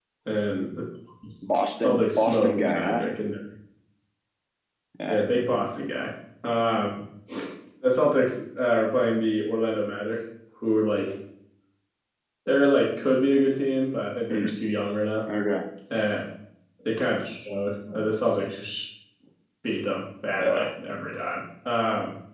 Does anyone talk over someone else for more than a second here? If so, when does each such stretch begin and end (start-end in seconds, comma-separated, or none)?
1.8-3.1